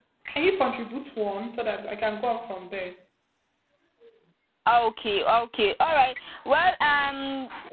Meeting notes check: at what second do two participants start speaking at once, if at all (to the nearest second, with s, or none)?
none